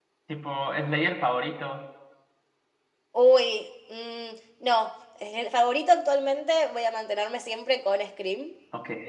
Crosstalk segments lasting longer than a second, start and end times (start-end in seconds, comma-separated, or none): none